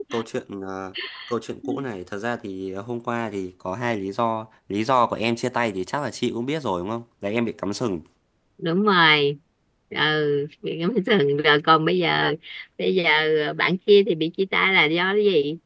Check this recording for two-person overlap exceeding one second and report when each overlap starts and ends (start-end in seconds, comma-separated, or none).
none